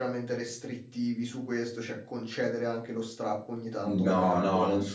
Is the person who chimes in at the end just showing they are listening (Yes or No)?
No